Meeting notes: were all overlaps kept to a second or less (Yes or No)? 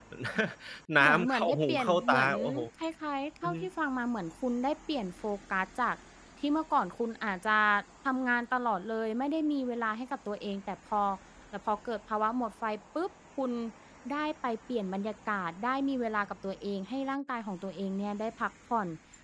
No